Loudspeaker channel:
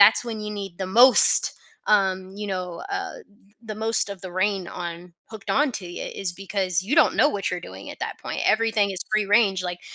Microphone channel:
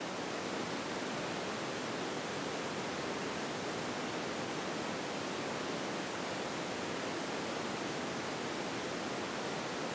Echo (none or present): none